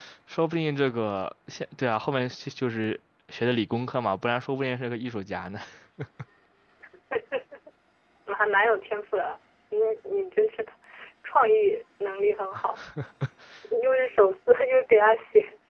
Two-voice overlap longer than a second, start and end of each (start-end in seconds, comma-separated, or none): none